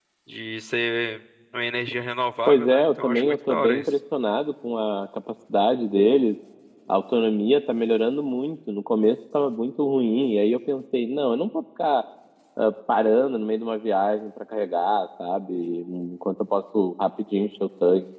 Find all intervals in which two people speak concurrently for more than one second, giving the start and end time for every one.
2.5-3.9

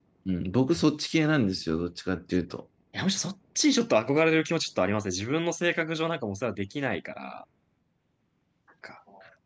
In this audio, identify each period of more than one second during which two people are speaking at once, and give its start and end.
none

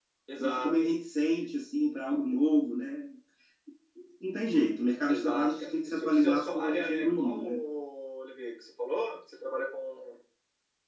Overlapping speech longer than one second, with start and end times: 5.1-7.6

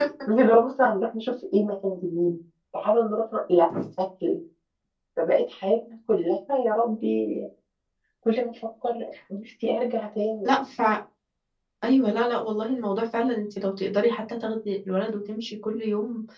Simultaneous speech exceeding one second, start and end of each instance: none

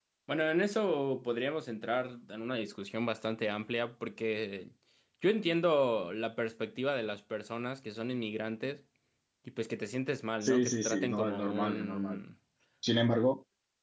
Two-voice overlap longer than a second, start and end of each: 10.4-12.2

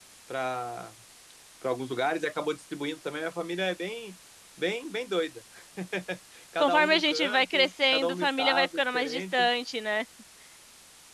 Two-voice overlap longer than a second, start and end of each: 6.6-9.5

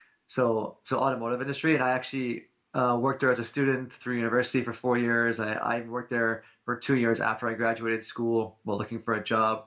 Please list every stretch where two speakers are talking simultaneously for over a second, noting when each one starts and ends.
none

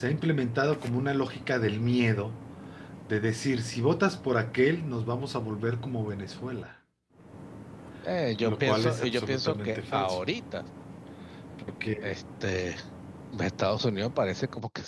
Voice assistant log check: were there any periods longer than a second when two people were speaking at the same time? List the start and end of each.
8.4-10.2

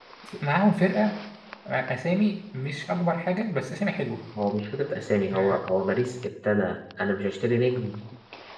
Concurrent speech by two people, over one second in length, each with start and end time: none

